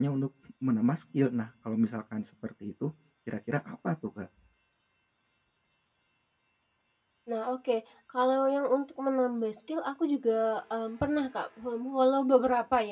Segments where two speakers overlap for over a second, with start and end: none

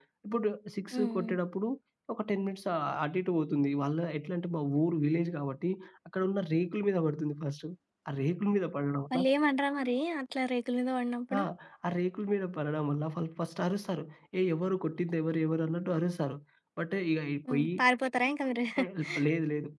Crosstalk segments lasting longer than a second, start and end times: none

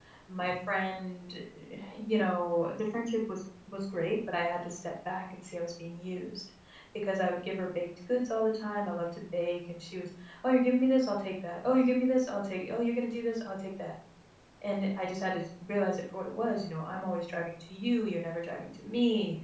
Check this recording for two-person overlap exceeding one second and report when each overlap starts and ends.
none

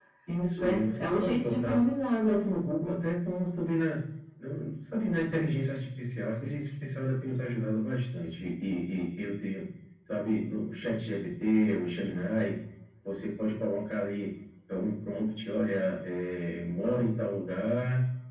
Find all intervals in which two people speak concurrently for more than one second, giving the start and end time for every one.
0.6-1.8

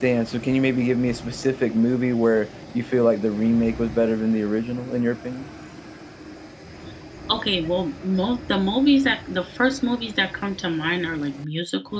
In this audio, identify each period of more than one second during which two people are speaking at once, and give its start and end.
none

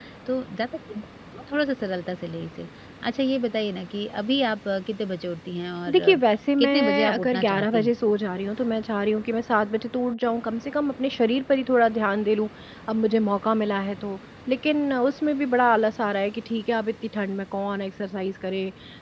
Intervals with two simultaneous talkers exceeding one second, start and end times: 6.6-7.9

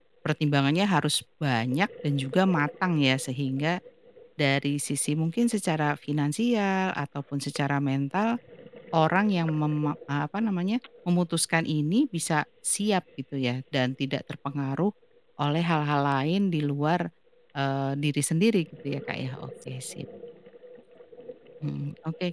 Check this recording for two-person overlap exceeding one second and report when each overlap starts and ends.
none

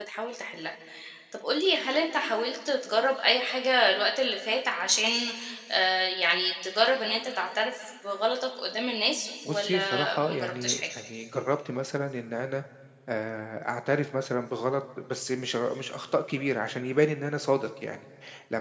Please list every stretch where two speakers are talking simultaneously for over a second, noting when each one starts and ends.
9.5-10.8

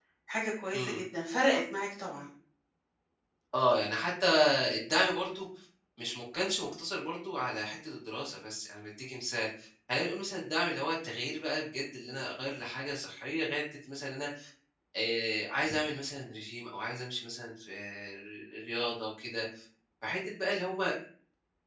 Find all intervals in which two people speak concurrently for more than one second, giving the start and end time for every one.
none

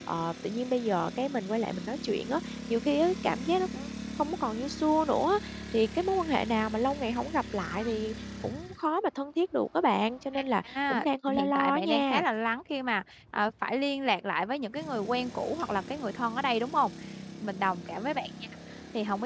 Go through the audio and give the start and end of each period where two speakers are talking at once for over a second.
10.6-12.2

